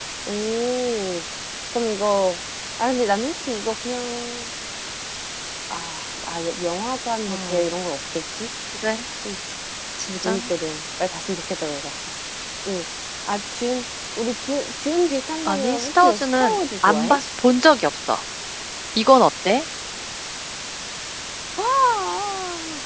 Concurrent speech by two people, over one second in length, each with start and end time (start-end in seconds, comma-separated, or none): 15.4-17.2